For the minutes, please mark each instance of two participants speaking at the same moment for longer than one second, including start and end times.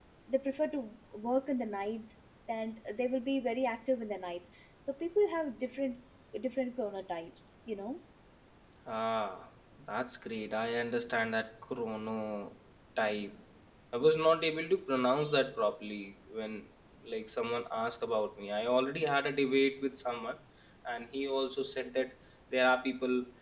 none

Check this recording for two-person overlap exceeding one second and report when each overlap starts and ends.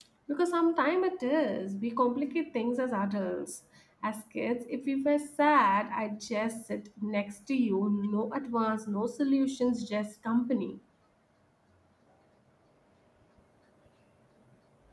none

